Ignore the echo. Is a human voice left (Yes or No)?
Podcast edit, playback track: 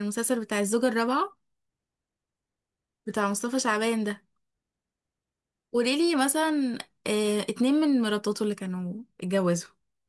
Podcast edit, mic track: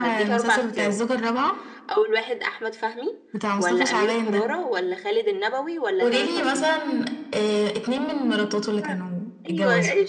Yes